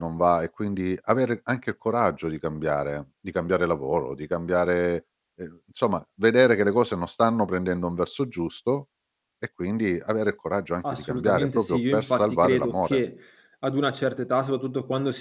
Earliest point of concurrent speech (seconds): 11 s

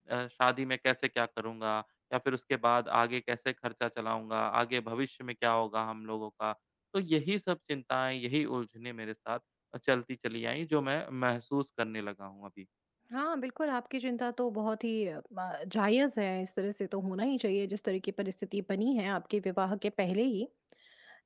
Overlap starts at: none

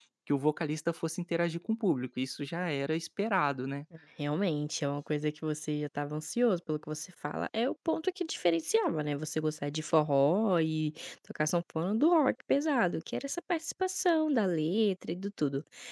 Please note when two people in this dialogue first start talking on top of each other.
none

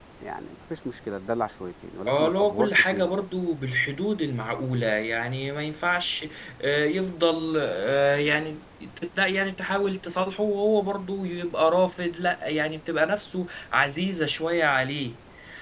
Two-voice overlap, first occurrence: 2 s

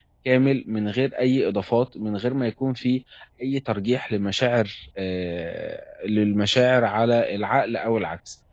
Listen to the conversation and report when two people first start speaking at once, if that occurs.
none

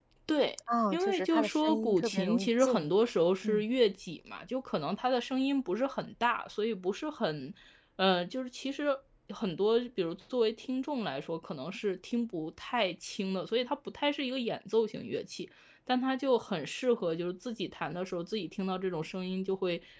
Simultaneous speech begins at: 1 s

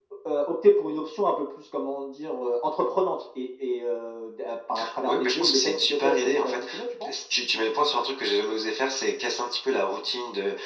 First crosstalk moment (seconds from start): 5 s

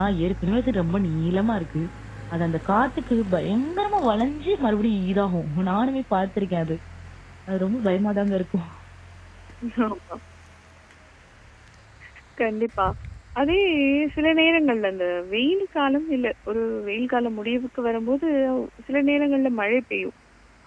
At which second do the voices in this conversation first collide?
none

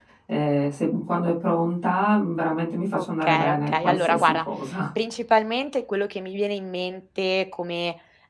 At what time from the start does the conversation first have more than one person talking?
3 s

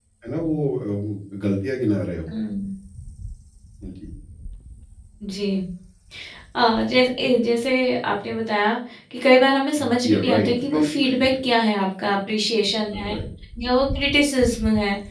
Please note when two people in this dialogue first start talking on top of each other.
10 s

